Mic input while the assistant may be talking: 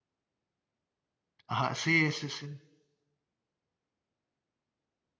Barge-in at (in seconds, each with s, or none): 1.5 s